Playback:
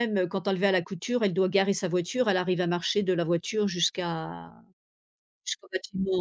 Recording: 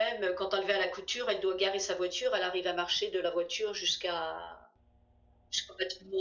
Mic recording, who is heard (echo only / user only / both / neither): echo only